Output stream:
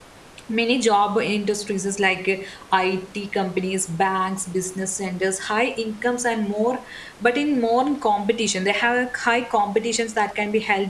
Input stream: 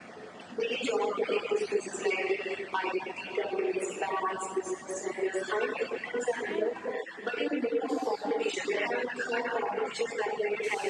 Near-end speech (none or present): present